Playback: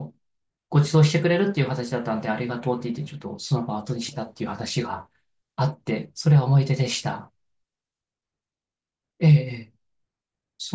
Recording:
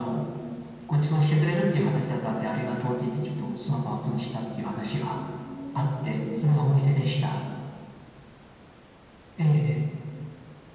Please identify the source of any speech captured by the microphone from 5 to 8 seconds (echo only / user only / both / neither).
both